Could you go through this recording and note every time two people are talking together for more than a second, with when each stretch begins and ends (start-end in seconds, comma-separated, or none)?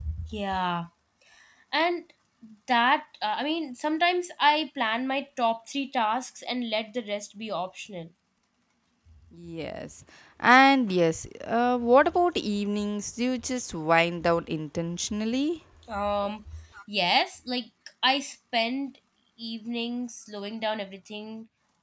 none